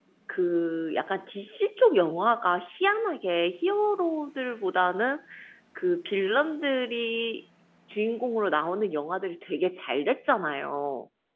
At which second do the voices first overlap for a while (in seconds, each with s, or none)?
none